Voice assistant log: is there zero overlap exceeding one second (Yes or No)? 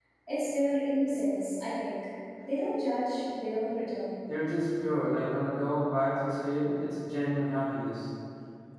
Yes